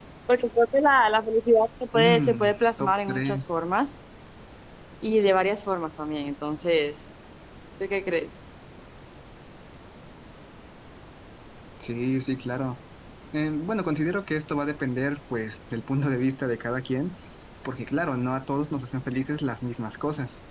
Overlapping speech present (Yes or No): Yes